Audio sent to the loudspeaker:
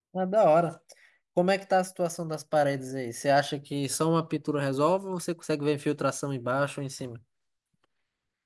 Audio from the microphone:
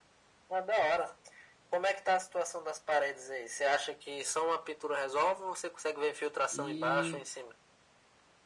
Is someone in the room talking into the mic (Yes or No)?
Yes